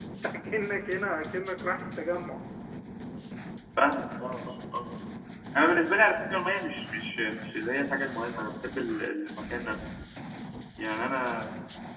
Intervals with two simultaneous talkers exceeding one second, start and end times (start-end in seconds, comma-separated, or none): none